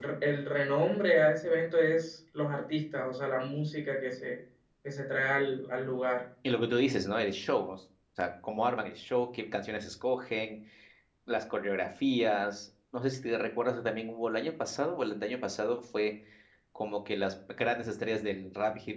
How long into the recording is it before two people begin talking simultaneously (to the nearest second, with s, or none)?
none